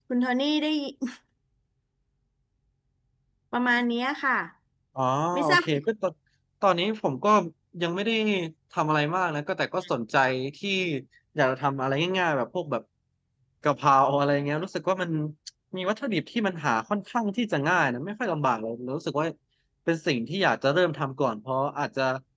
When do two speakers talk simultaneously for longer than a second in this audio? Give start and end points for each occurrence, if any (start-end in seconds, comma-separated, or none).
none